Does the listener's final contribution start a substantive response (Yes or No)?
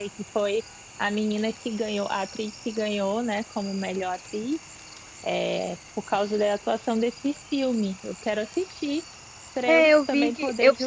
Yes